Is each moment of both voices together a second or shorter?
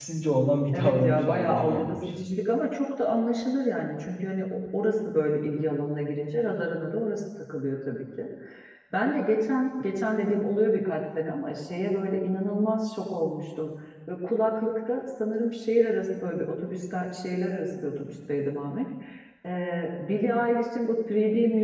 No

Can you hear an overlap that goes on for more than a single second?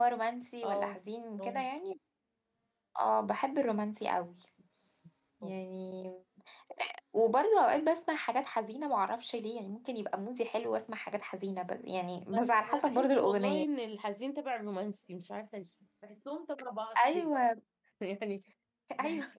Yes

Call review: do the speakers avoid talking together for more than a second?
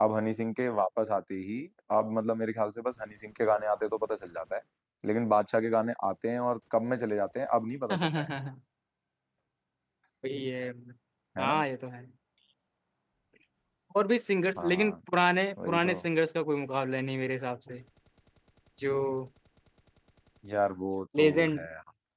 Yes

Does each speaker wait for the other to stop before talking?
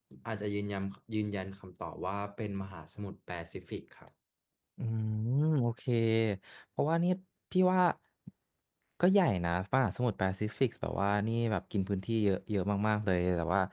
Yes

